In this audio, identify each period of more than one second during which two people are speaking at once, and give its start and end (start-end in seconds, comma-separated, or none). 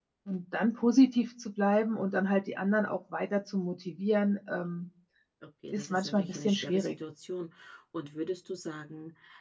5.7-6.9